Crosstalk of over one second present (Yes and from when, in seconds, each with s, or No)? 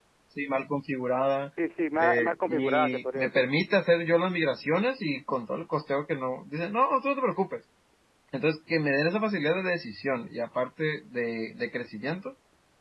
Yes, from 2.0 s